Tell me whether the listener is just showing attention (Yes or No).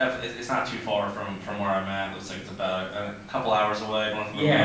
No